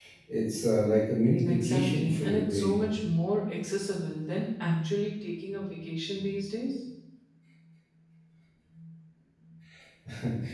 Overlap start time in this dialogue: 1 s

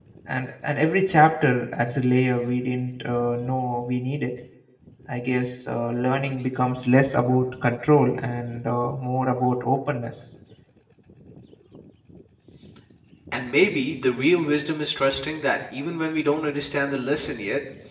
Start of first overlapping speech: none

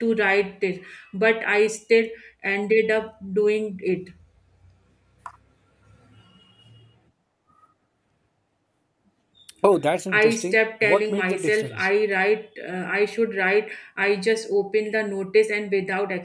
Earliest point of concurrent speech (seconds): 10 s

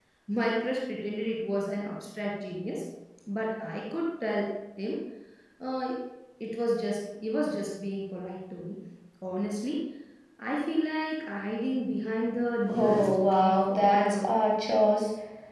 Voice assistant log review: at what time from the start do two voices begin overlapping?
13 s

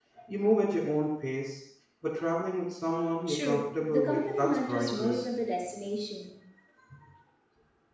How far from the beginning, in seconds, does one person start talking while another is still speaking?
3 s

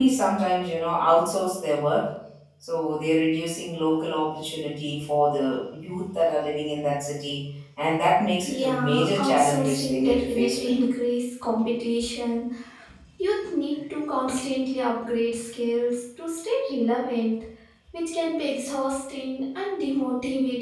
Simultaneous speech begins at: 8 s

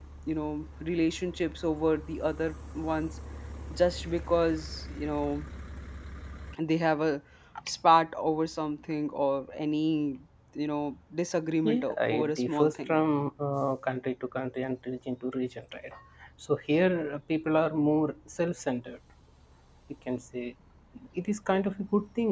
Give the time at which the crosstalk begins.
12 s

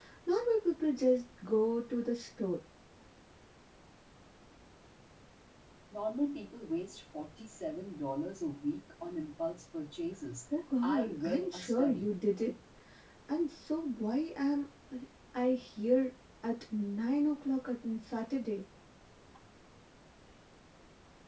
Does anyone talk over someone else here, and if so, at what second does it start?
11 s

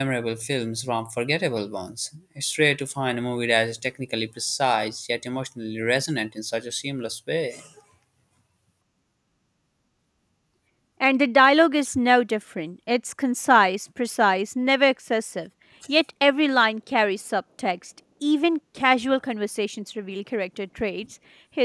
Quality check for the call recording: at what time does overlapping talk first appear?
none

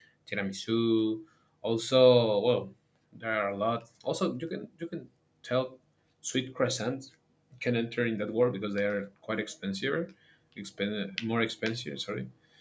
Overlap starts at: none

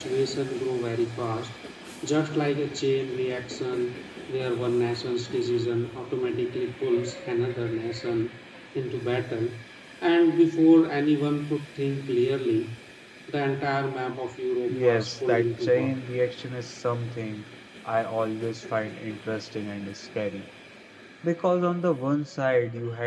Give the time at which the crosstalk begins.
15 s

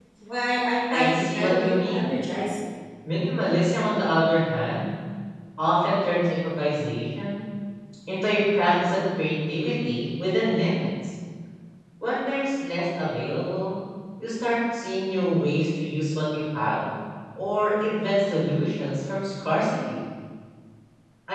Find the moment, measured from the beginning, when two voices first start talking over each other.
1 s

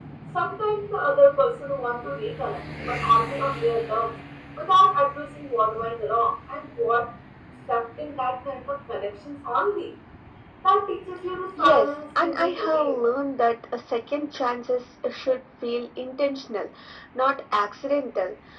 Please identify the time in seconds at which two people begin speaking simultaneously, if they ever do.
12 s

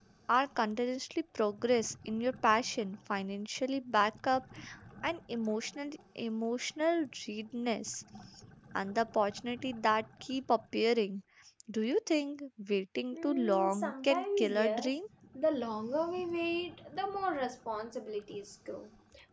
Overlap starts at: 13 s

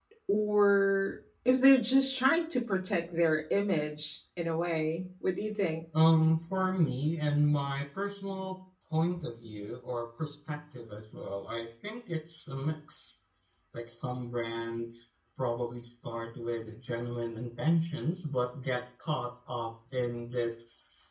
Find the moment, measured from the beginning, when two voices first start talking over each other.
none

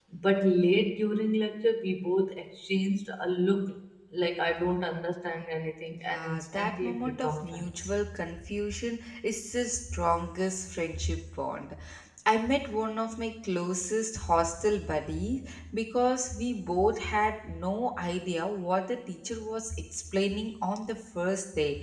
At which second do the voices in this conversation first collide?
6 s

